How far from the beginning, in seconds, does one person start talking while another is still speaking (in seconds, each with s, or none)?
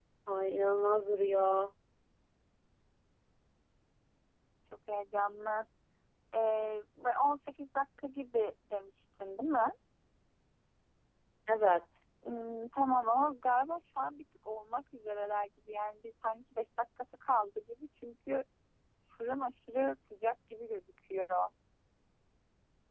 none